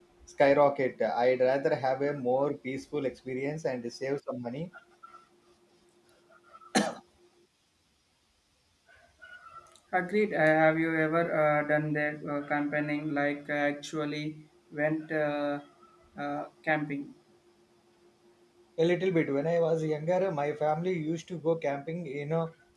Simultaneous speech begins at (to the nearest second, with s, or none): none